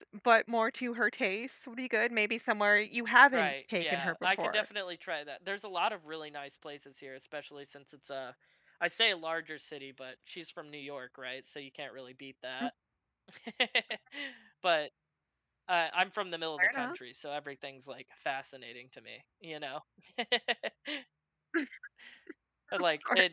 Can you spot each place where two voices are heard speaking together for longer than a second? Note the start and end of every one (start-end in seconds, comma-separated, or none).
3.3-4.6